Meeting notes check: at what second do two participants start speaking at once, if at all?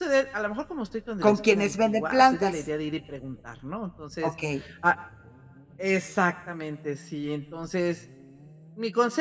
1.2 s

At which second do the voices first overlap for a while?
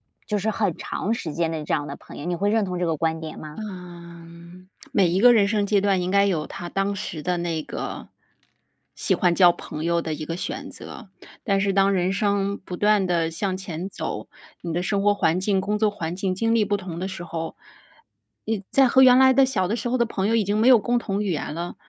none

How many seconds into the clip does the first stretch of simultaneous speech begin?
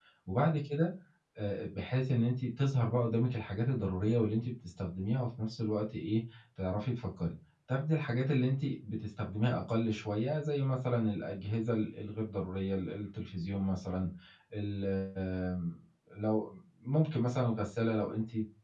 none

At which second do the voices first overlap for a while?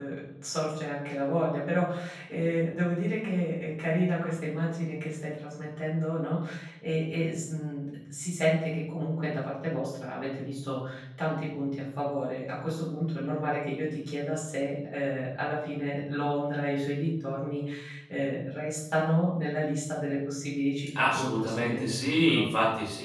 21.0 s

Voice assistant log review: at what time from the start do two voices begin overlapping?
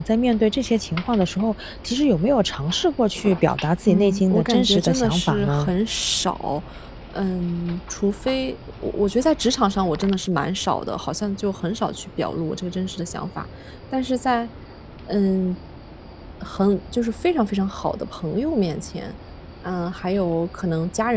3.9 s

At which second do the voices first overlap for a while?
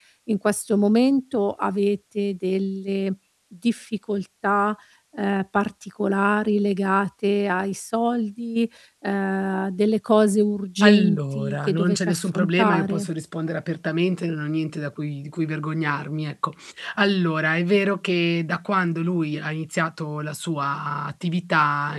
10.8 s

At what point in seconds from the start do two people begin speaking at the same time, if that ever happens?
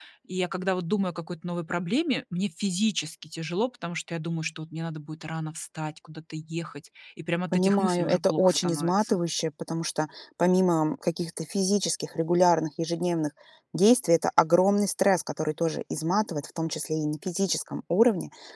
7.5 s

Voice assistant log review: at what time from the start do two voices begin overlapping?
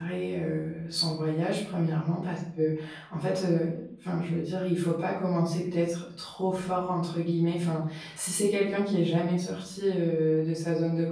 none

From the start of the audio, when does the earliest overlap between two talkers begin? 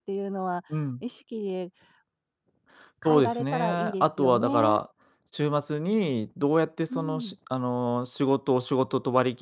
3.0 s

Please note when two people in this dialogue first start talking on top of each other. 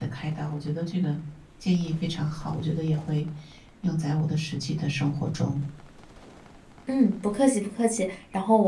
none

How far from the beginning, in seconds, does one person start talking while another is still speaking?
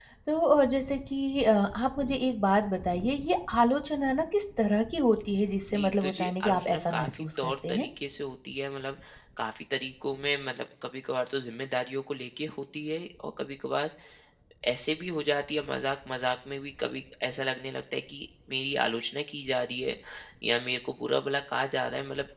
5.7 s

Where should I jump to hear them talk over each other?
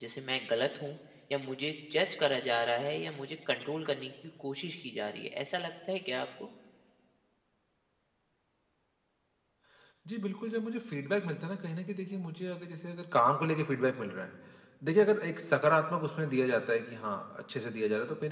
none

